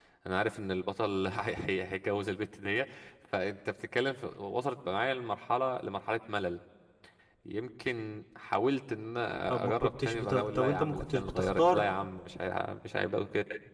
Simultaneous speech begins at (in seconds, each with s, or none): 9.5 s